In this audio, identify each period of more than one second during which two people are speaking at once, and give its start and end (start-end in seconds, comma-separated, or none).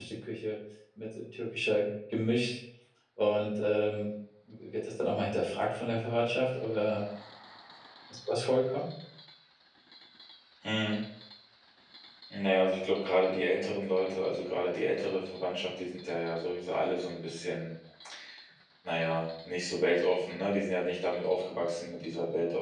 none